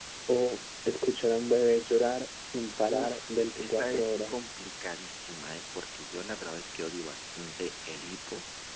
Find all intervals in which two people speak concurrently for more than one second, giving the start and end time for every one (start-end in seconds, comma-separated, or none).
2.9-4.4